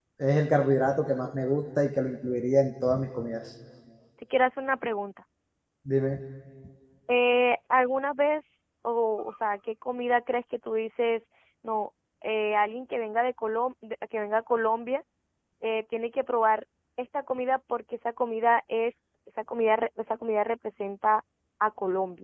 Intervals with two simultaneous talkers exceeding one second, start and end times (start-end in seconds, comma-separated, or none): none